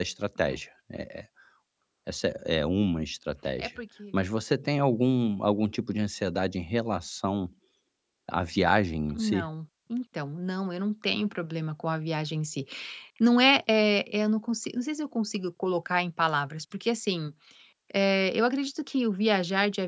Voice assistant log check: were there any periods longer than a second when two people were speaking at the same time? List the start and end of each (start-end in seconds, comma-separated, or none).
none